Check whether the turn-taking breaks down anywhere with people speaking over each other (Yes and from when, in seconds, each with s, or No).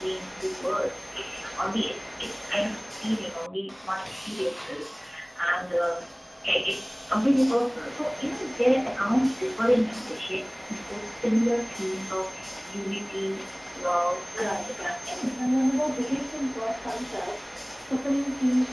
Yes, from 14.3 s